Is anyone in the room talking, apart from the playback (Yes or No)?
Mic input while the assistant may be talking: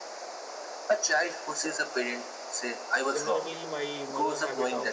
Yes